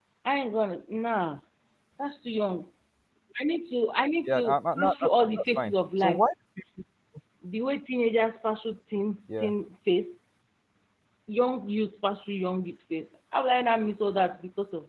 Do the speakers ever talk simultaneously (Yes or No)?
Yes